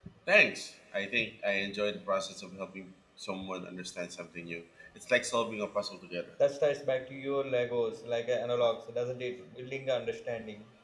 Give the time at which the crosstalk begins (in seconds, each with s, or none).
none